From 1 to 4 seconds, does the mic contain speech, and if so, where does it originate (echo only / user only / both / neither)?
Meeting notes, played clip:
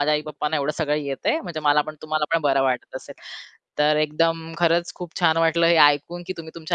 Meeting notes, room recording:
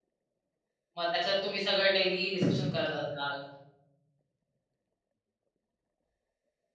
user only